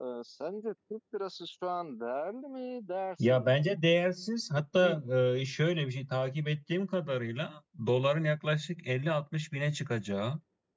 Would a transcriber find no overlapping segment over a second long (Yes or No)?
Yes